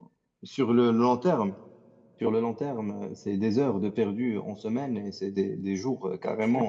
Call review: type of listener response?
listening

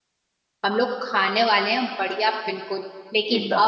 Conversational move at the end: listening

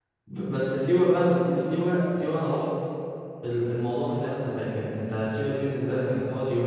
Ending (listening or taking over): listening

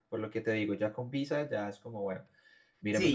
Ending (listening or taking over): taking over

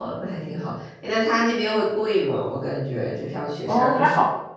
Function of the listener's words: taking over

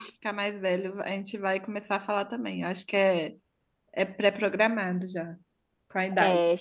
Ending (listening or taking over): listening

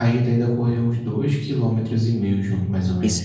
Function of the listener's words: listening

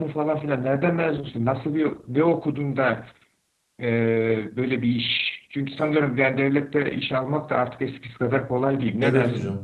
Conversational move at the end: taking over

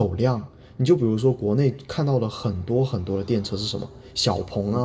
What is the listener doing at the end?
listening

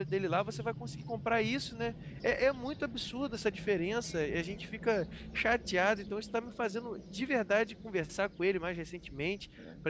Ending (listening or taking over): listening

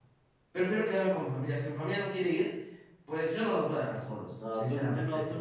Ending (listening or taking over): taking over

